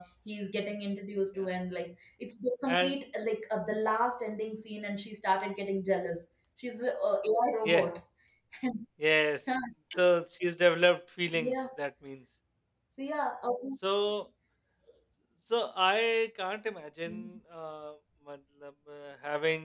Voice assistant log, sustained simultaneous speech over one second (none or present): none